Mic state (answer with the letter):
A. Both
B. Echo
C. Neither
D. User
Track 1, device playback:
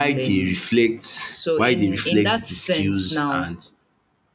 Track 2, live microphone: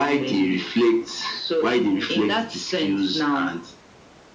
B